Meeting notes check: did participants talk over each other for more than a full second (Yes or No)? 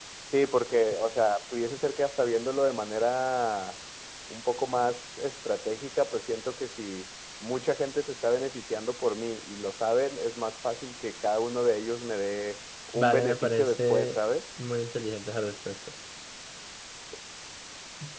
Yes